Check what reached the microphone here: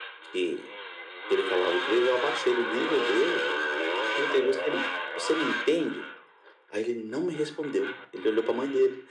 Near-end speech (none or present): none